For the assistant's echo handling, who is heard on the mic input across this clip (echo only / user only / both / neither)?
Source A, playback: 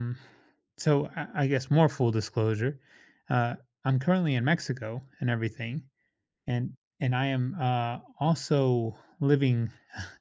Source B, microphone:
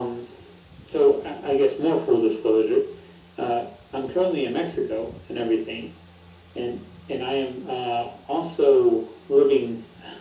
echo only